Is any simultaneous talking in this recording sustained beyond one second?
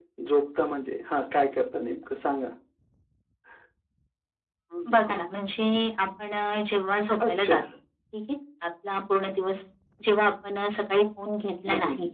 No

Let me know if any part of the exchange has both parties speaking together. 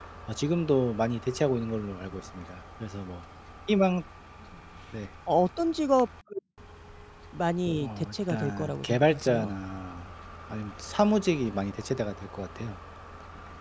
Yes, from 7.8 s

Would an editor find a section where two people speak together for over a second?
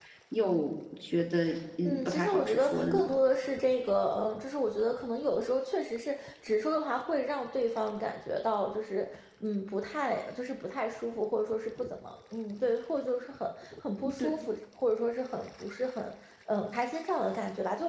Yes, from 1.9 s

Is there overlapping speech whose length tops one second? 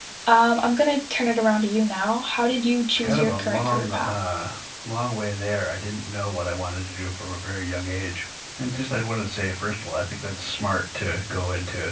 Yes, from 2.9 s

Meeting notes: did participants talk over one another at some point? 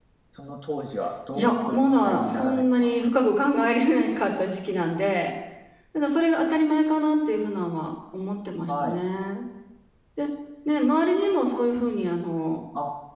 Yes, from 1.3 s

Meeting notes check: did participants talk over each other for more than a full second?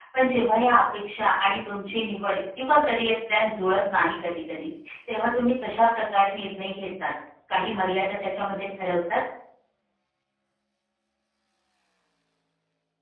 No

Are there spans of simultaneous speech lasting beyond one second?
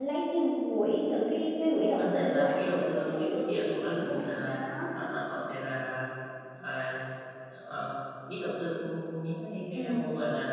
Yes, from 2.0 s

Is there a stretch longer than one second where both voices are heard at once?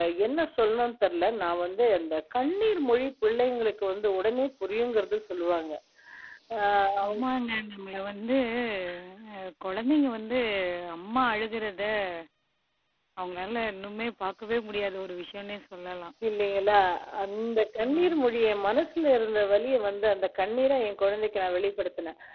No

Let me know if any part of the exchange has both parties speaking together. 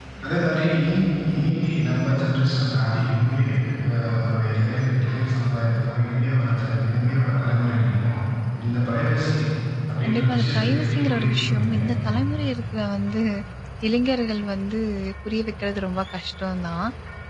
Yes, from 10.0 s

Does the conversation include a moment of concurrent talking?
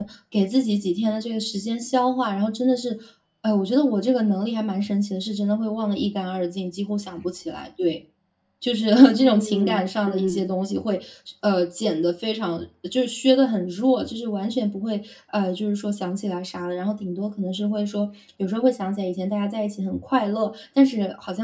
Yes, from 9.1 s

